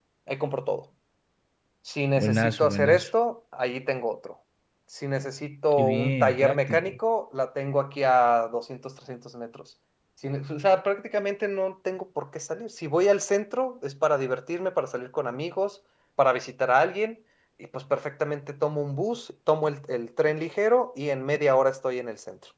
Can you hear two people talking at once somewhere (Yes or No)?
Yes